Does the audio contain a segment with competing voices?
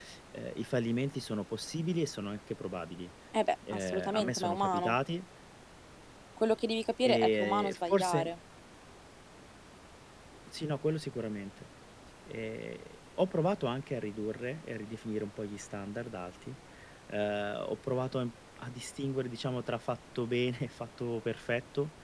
Yes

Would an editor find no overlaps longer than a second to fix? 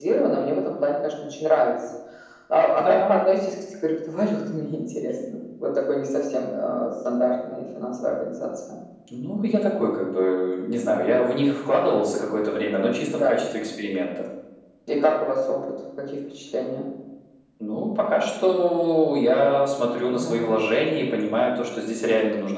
Yes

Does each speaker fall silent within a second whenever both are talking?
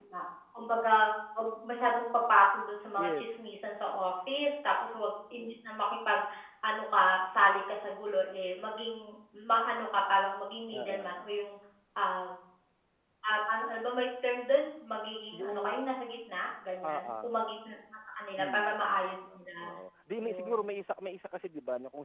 No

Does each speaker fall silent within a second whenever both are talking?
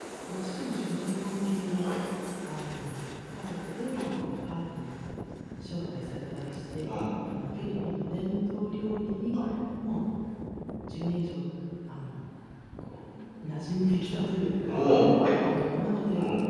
Yes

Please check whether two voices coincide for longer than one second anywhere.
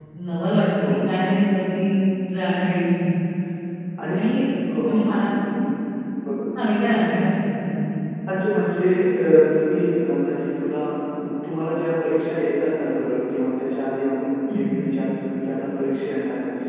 No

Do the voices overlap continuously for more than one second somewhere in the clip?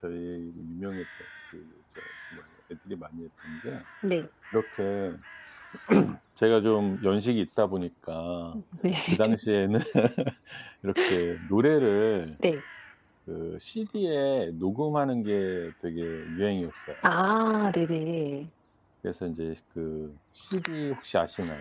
No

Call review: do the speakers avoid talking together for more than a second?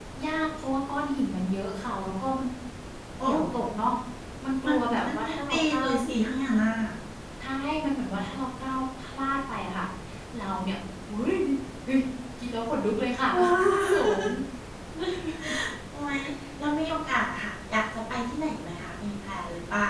No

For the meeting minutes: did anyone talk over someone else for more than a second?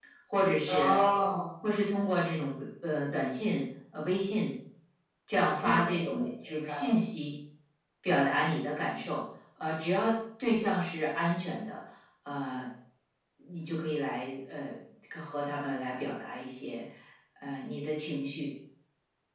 Yes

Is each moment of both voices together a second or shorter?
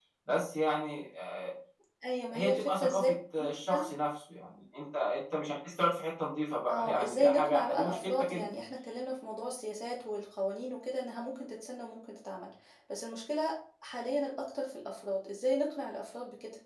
No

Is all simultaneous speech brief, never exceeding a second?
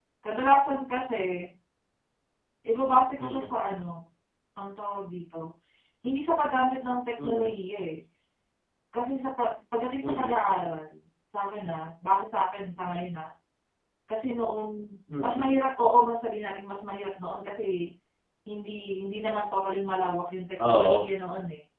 Yes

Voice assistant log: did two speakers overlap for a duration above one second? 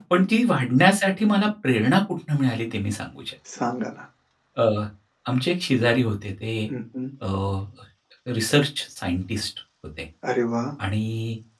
No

